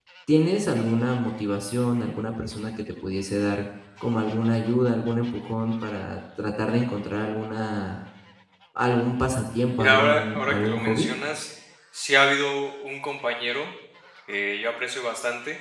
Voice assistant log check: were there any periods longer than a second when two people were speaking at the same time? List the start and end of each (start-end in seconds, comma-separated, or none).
9.7-11.1